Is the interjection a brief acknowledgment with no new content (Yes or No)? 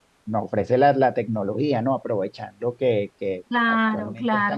No